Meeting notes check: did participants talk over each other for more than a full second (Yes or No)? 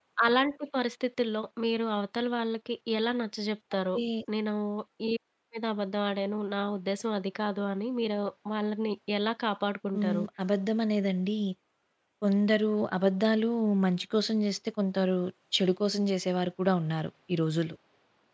No